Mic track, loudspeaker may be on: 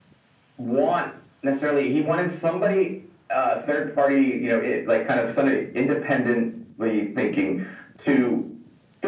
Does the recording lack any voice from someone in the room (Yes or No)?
Yes